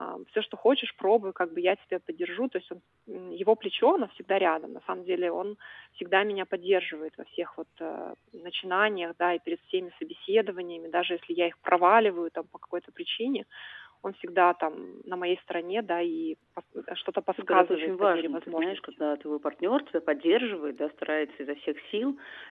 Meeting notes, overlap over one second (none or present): present